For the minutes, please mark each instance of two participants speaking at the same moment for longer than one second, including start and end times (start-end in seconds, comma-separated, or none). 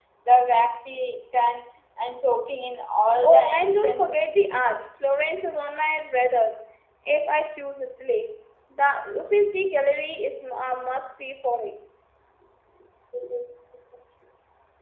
3.2-4.6